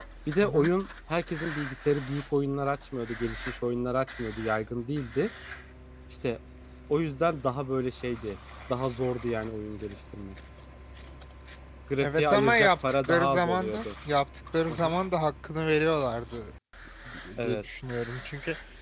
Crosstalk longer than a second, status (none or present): present